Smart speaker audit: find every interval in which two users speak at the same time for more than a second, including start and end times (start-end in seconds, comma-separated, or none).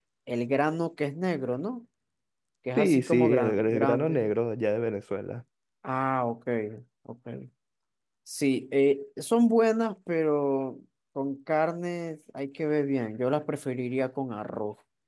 2.8-4.3